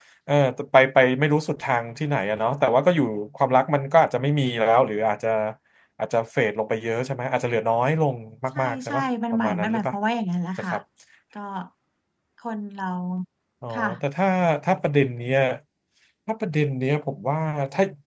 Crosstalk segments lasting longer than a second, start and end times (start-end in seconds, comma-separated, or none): 8.6-9.9